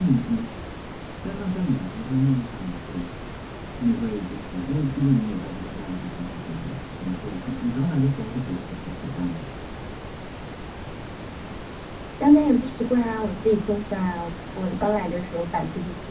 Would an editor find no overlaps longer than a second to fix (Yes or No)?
Yes